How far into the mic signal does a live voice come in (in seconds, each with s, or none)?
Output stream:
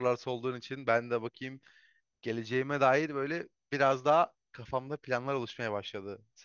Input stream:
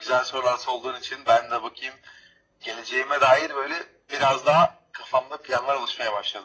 none